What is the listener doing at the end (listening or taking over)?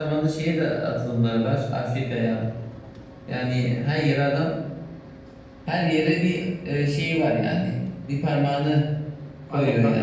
taking over